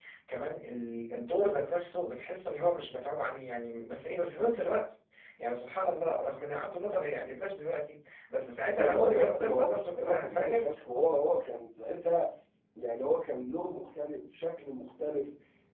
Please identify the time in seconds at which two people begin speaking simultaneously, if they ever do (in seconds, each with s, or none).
8.8 s